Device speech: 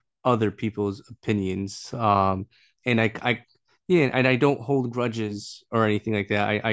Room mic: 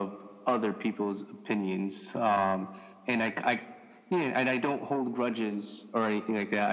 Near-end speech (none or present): none